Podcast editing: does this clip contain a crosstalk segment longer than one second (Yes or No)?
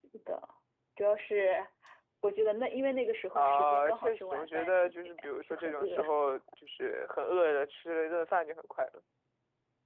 Yes